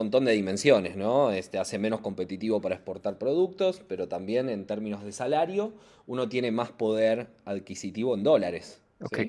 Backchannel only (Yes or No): No